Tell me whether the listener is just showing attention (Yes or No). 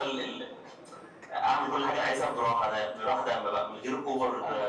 No